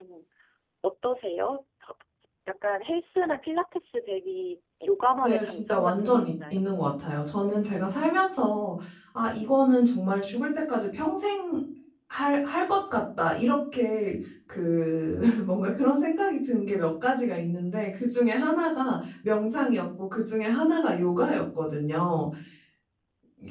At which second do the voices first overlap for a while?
5.2 s

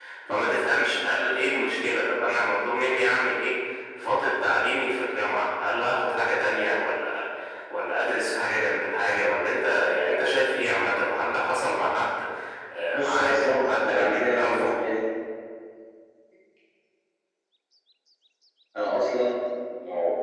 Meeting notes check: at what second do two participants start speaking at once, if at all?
12.9 s

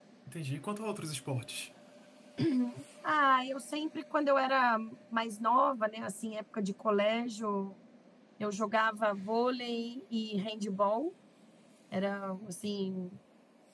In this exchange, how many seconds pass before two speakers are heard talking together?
none

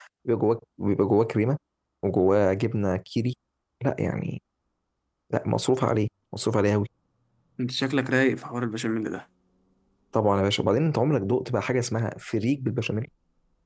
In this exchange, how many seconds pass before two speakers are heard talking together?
none

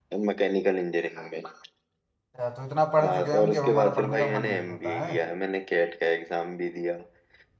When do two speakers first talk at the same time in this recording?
3.0 s

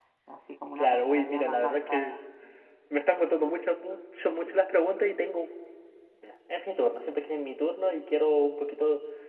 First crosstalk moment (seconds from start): 0.8 s

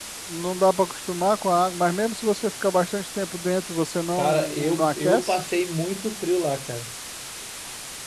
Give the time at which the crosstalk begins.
4.2 s

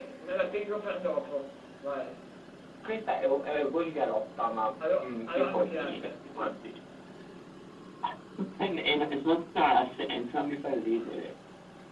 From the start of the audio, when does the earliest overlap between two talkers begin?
4.8 s

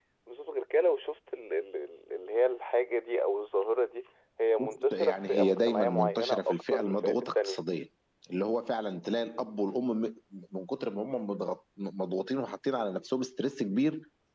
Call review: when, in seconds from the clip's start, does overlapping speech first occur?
4.6 s

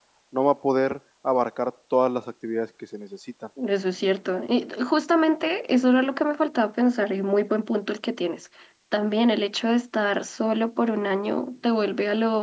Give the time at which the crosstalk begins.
none

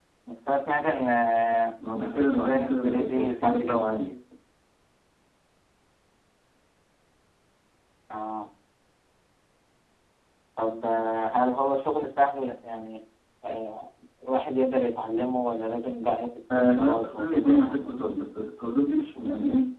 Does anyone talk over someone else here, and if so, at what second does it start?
2.0 s

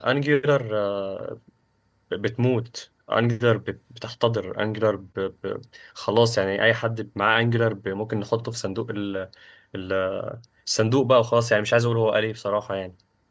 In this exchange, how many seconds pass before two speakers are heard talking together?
none

